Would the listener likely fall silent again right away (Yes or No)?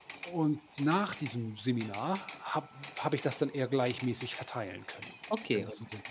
No